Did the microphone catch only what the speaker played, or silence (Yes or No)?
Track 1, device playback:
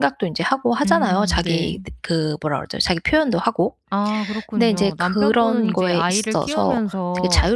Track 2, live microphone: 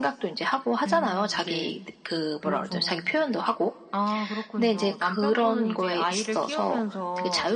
No